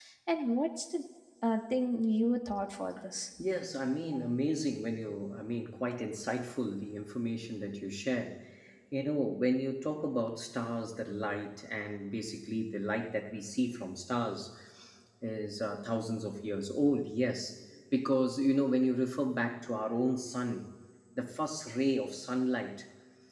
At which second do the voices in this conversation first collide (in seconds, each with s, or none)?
none